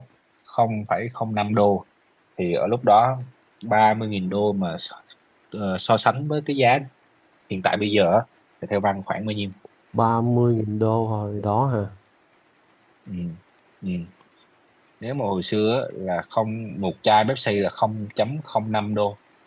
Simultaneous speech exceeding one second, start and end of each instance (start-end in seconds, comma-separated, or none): none